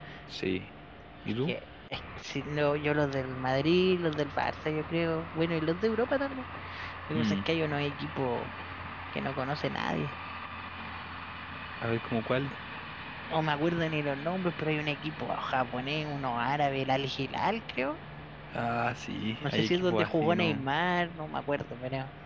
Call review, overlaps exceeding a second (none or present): present